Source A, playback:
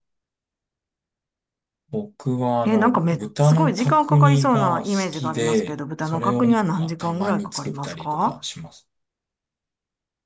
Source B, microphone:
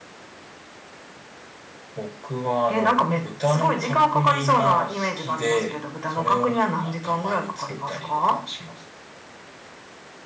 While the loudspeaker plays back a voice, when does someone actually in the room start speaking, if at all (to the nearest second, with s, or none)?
none